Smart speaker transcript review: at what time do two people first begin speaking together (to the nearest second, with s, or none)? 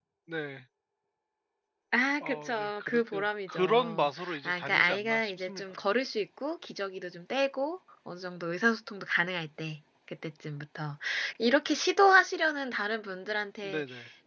2 s